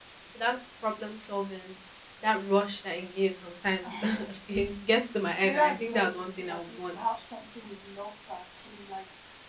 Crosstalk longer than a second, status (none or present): present